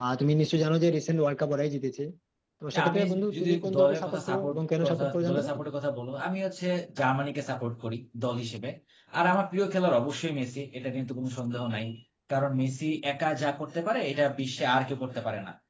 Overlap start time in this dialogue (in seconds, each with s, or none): 2.7 s